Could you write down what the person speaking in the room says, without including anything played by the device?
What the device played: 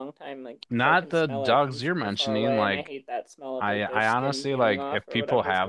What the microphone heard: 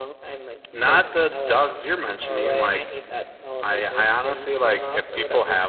none

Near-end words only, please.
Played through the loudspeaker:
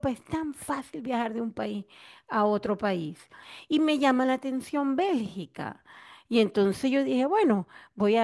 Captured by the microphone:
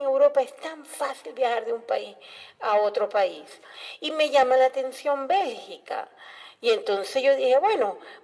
none

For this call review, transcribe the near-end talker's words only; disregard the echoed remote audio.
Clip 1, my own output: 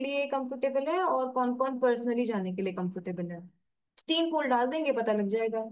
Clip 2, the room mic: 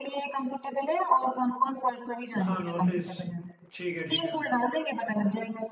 हाँ नॉर्थ ईस्ट ठीक है ठीक है

